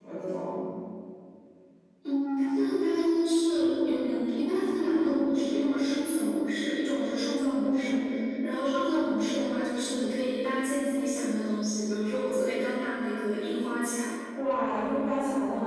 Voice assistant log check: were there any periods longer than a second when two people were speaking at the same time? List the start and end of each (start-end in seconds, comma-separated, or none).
none